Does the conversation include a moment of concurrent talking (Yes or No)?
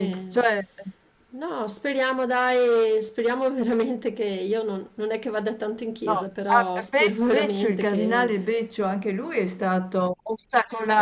Yes